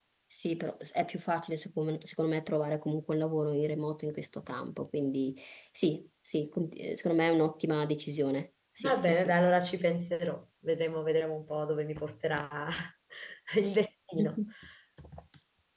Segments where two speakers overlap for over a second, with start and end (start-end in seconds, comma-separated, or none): none